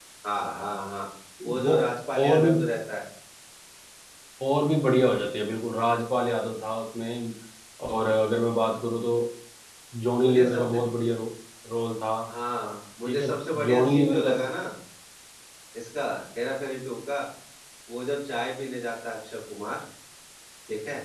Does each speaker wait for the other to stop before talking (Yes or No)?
No